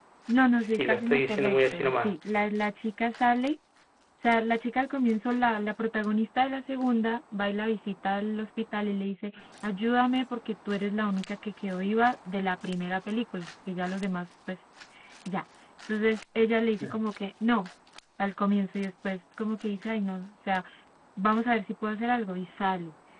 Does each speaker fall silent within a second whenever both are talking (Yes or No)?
No